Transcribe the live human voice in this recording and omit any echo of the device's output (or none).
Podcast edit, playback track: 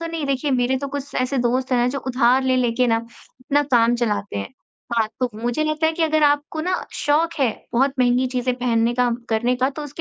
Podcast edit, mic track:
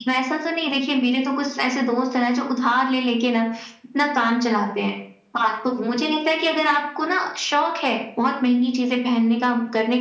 none